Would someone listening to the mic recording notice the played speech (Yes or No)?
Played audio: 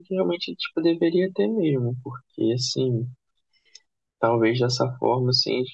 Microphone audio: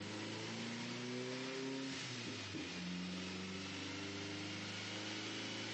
No